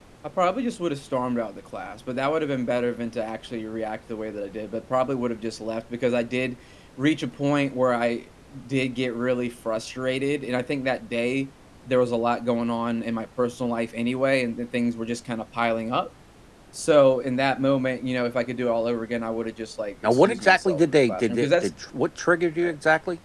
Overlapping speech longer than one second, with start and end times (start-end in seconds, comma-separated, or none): 20.0-21.7